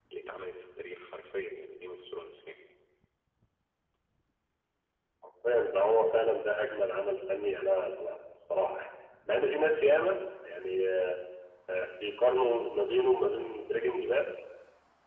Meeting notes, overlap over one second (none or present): none